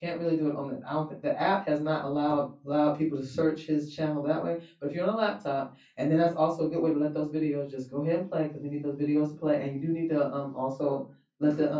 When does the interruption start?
none

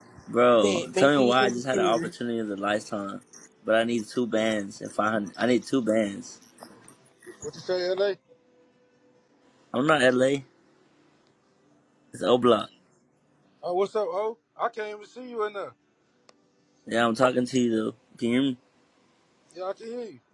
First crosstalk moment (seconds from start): 0.6 s

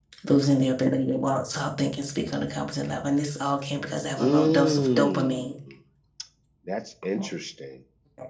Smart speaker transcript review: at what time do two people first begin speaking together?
4.2 s

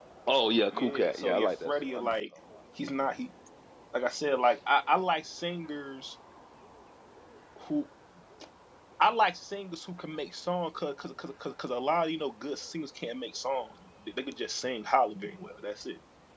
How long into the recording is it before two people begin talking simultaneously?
0.7 s

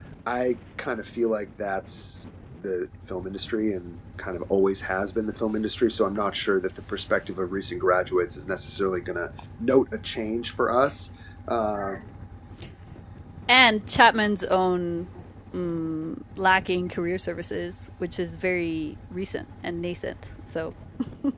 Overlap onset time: none

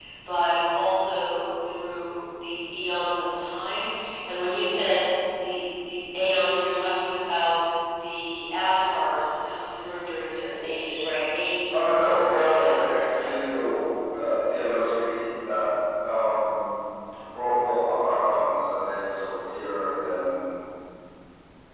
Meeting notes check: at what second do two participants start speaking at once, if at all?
11.7 s

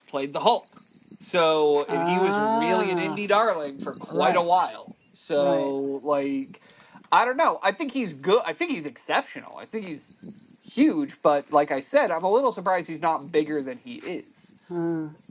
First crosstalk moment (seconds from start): 1.9 s

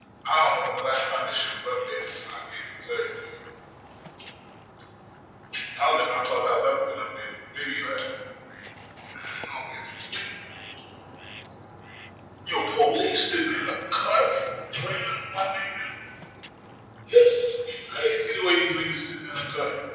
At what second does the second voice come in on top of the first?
none

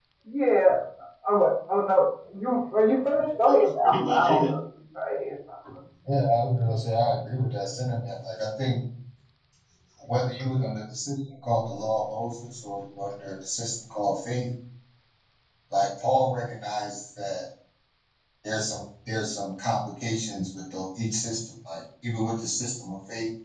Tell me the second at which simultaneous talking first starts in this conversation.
3.3 s

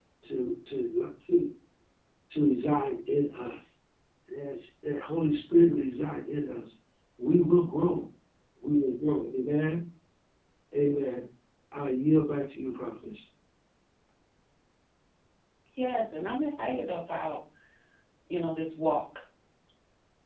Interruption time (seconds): none

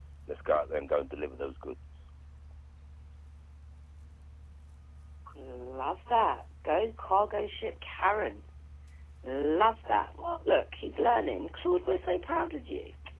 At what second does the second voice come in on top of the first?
none

